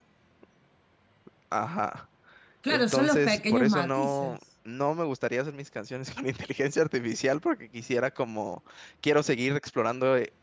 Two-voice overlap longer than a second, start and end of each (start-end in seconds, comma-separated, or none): 2.7-4.4